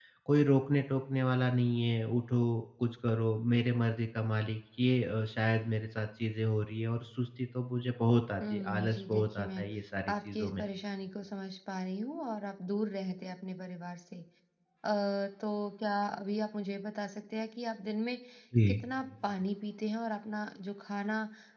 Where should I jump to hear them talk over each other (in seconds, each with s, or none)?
8.4 s